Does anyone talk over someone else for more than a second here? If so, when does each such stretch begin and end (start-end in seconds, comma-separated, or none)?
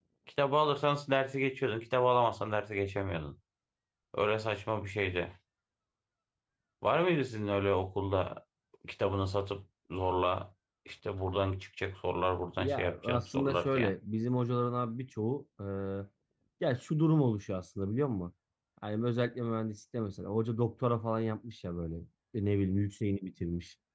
12.6-13.9